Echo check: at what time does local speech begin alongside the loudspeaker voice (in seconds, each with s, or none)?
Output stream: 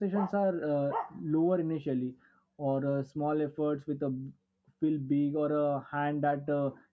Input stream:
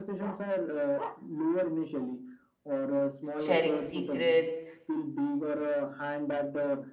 3.4 s